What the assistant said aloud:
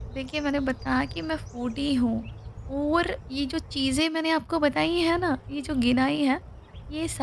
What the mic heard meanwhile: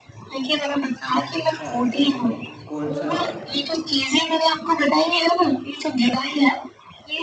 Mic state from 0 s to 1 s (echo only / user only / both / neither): echo only